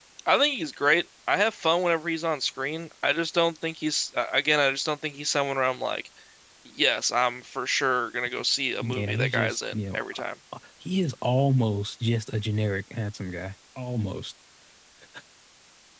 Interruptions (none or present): present